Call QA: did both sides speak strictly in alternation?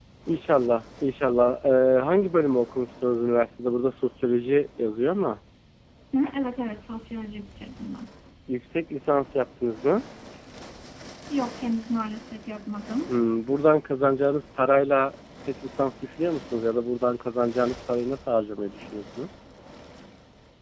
Yes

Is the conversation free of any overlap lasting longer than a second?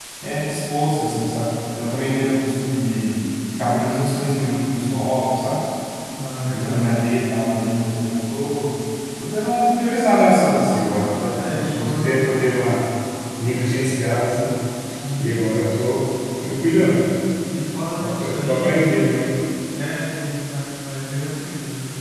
No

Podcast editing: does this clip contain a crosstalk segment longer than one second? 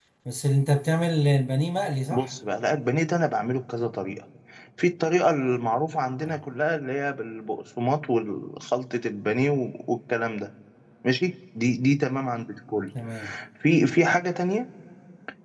No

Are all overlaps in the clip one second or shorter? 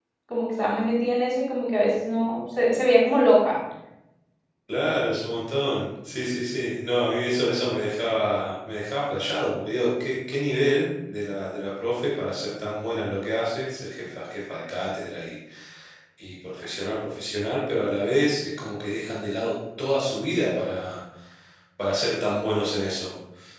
Yes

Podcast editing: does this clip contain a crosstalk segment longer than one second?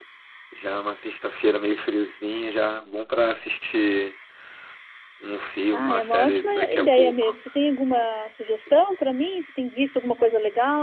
Yes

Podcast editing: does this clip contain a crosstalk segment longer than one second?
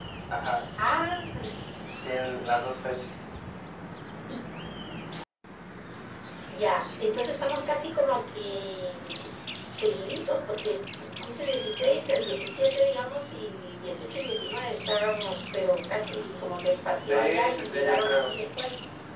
Yes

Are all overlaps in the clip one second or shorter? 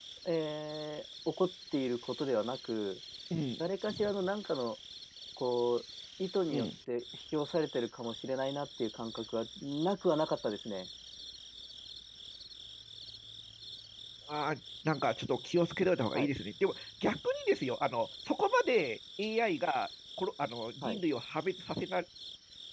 Yes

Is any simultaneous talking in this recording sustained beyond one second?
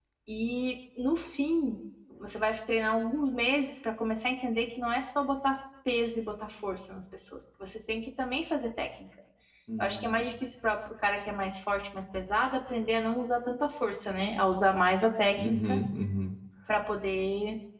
No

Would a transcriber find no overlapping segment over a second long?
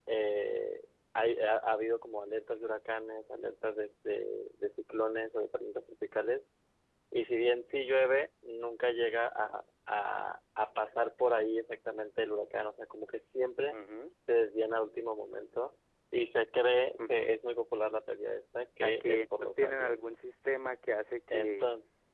No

